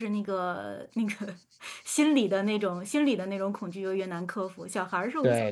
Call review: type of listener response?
taking over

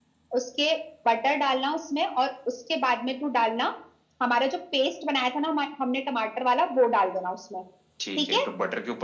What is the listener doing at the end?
taking over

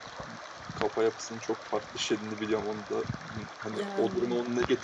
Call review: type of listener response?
listening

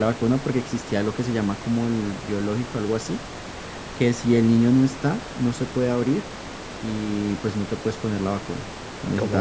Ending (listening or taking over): taking over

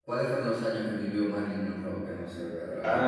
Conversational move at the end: taking over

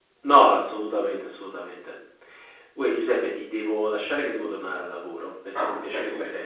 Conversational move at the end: taking over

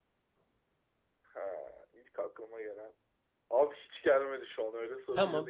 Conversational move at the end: taking over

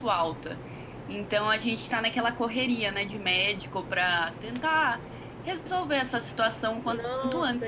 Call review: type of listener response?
taking over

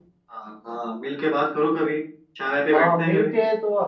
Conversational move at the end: taking over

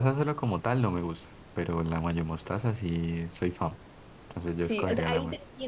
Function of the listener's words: taking over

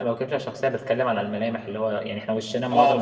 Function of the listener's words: taking over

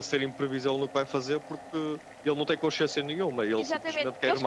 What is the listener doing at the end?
taking over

